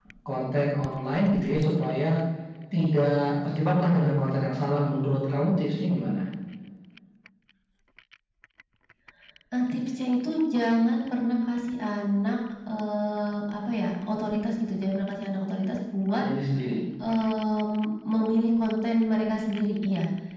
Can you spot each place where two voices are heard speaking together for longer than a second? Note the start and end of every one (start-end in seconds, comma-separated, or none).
none